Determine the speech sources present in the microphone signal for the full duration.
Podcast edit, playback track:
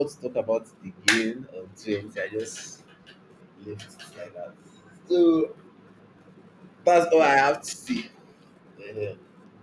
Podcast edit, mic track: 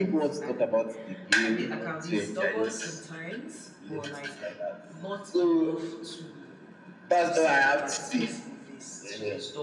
both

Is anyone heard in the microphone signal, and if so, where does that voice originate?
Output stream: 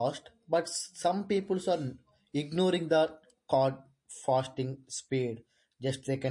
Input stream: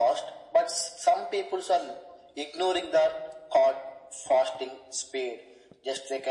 echo only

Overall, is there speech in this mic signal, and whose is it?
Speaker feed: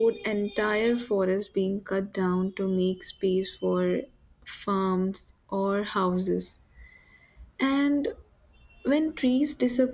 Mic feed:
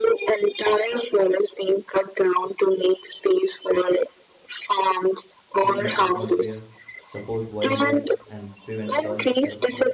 both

